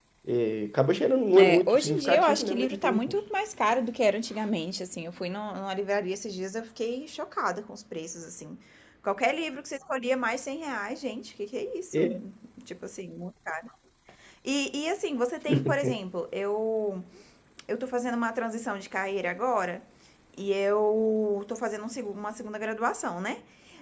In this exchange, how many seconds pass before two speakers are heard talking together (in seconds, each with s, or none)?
1.4 s